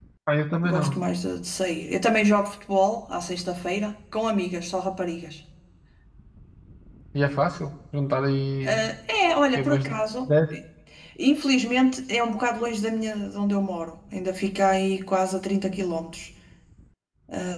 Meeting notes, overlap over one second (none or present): none